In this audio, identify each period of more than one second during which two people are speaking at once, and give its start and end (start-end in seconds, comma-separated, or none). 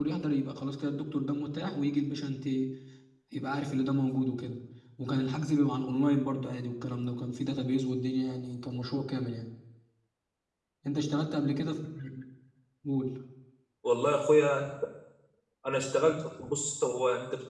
none